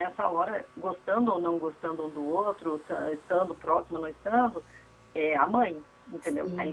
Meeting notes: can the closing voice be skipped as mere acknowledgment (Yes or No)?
No